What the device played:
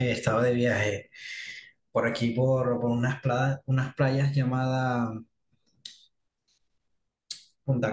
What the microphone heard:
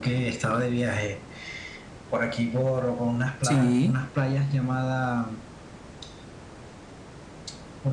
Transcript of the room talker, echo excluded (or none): sí.